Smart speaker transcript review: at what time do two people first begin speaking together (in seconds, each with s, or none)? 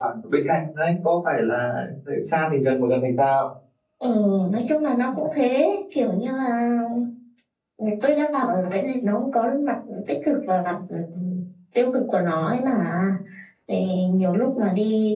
none